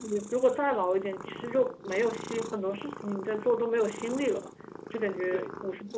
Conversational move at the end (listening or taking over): listening